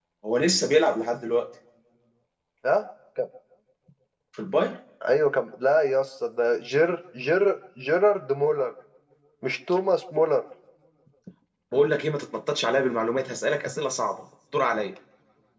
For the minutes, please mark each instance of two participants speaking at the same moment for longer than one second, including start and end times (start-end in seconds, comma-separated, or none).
none